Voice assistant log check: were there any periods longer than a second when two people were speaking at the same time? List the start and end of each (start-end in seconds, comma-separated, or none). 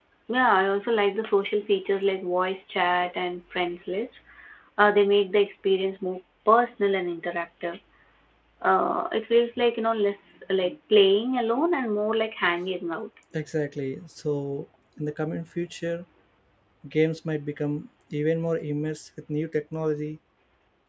none